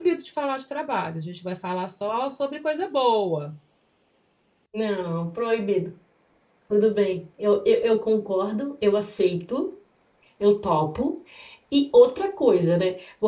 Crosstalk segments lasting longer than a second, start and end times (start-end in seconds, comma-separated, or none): none